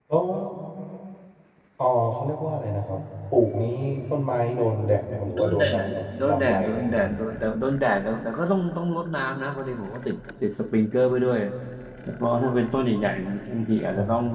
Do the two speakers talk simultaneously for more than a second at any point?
Yes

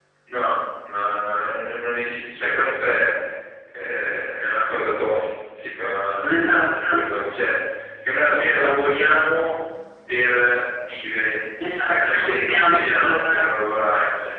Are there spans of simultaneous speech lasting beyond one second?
Yes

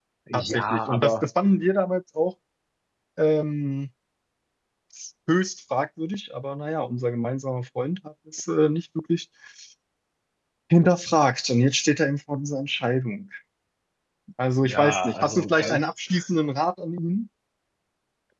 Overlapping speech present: Yes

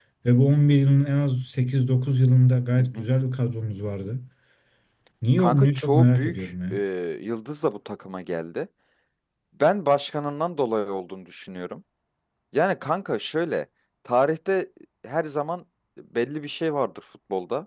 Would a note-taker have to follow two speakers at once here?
Yes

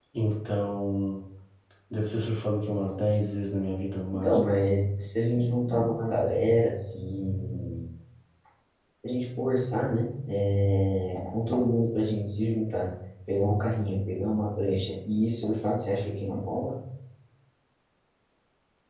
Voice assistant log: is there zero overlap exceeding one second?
Yes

